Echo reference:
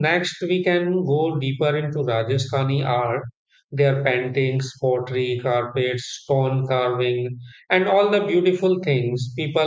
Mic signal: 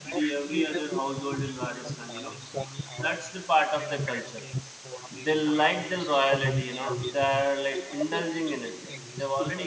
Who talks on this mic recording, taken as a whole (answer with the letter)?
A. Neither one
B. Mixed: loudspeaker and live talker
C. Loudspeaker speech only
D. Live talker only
B